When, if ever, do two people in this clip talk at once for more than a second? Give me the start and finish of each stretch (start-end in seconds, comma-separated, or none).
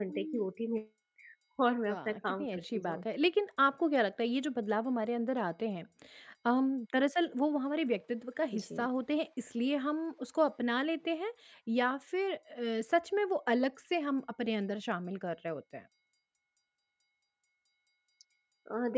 1.8-3.0